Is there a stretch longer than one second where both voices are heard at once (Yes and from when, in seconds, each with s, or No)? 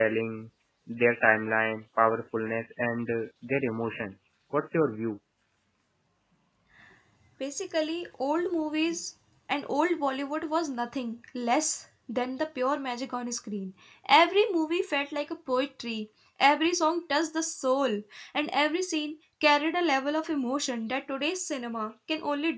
No